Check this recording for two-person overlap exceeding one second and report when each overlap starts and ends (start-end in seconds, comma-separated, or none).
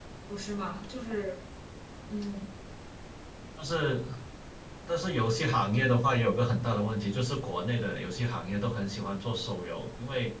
none